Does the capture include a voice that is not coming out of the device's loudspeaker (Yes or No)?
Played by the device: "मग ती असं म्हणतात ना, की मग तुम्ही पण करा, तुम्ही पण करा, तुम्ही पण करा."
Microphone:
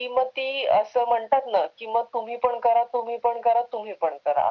No